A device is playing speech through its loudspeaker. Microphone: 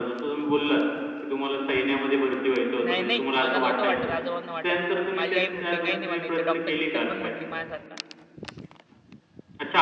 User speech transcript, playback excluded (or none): नाही-नाही. मला नव्हतं वाटत, आजोबांना वाटायचं. माझी आई म्हटली, "काही नाही बनायचं. डॉक्टर-बुक्टर बन" म्हटली माझ्यासारखा.